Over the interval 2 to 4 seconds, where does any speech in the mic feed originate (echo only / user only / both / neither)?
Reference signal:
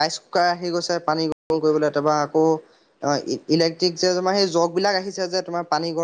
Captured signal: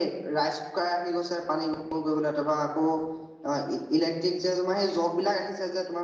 echo only